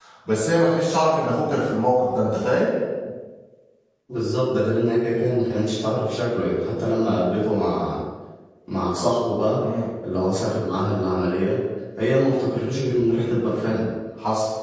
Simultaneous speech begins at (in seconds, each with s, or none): none